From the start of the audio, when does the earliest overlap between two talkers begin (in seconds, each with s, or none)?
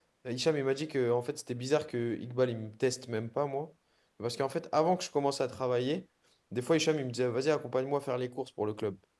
none